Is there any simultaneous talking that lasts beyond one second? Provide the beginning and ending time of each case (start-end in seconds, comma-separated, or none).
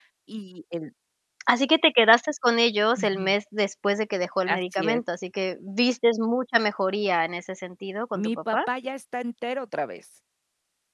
none